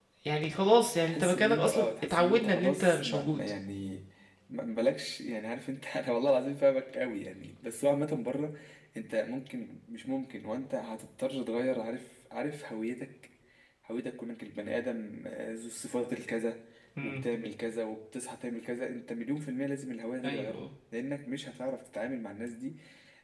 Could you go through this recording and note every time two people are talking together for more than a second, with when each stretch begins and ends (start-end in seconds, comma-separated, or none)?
1.0-3.5